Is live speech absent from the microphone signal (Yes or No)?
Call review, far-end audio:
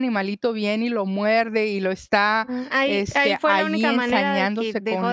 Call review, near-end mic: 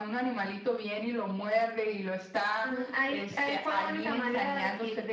No